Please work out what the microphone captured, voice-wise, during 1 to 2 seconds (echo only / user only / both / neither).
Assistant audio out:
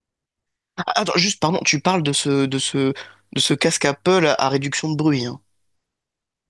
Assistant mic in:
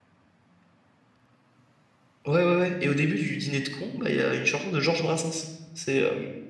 neither